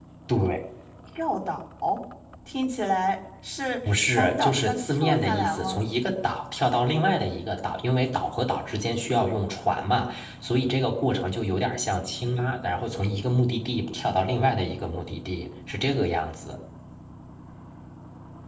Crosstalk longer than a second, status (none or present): present